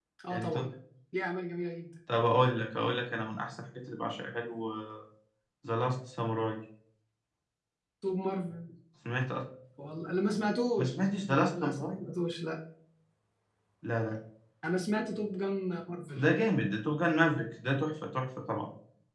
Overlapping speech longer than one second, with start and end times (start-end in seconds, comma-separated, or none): 10.8-12.0